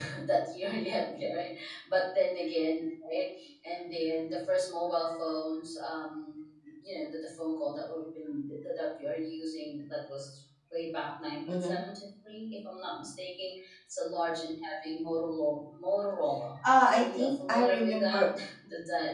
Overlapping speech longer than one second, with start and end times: 16.9-18.2

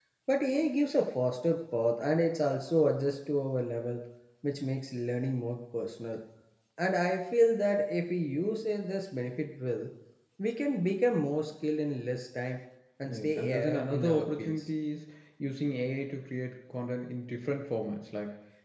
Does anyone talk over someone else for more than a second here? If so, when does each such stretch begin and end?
13.0-14.7

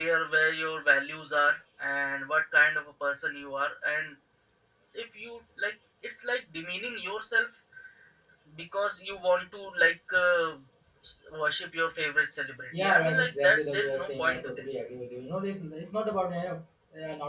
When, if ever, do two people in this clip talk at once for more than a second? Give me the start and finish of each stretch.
12.8-14.7

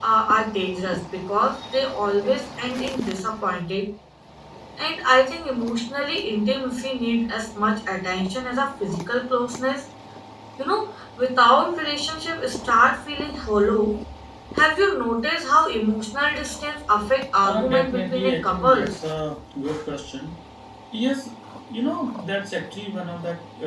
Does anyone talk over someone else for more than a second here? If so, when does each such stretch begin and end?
17.4-18.9

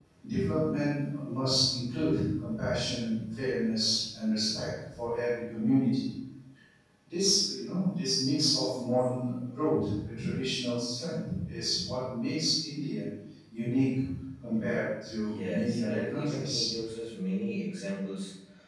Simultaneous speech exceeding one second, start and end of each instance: 15.3-16.7

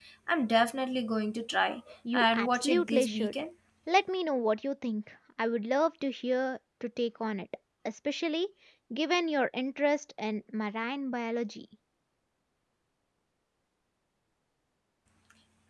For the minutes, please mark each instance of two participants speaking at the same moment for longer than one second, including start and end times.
2.1-3.3

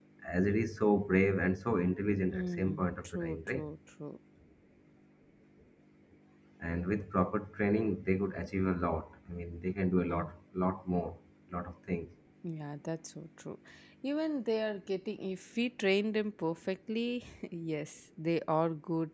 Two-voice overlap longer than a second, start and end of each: 2.3-3.6

